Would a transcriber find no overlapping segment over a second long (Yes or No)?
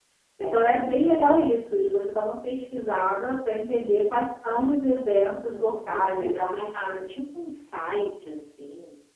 No